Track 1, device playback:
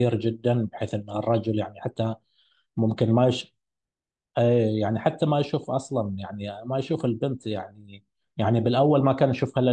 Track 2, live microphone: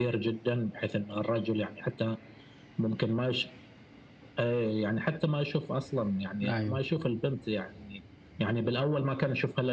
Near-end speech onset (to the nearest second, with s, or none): 6 s